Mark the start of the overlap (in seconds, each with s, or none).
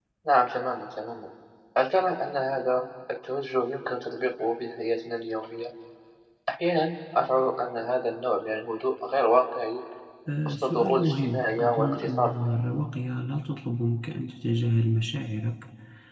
10.5 s